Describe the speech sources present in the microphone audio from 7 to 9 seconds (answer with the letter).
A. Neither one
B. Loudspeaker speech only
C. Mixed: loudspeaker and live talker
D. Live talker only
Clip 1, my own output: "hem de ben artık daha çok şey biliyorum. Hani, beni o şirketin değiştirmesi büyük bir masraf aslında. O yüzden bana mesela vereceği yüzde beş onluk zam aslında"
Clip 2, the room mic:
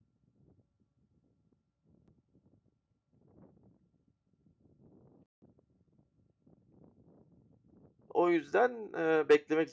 D